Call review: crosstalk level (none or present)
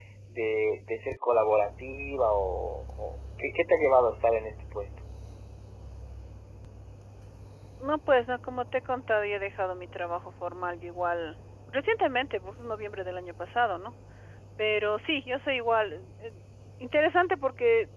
none